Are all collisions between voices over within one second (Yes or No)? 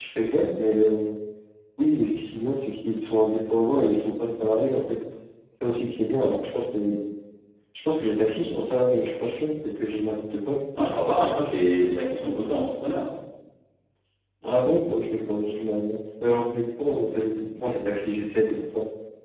Yes